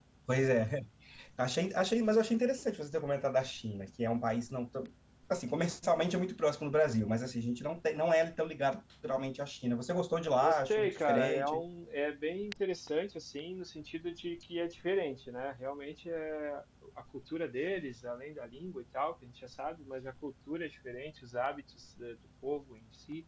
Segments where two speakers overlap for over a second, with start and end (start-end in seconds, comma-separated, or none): 10.4-11.6